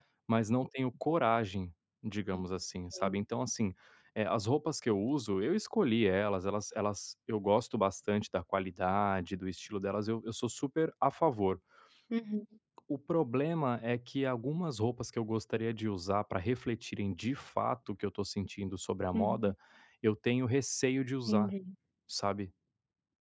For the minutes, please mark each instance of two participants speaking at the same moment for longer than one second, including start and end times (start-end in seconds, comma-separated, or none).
none